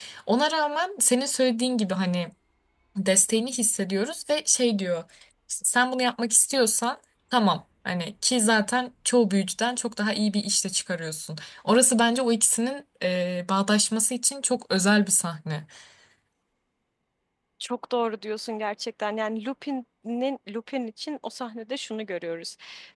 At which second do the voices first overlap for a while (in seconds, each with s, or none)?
none